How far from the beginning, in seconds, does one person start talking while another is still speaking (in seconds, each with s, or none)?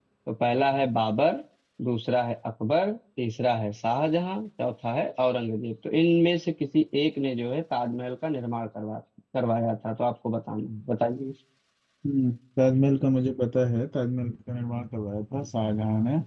none